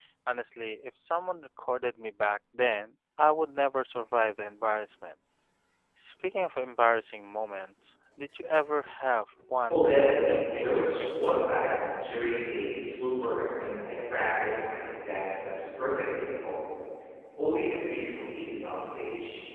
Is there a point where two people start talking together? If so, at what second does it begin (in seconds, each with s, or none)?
9.7 s